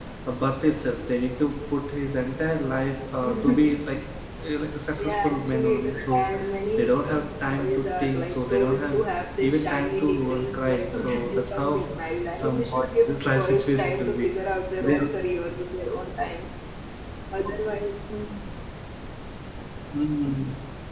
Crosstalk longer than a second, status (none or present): present